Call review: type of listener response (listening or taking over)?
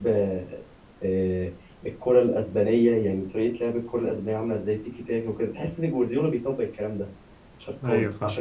listening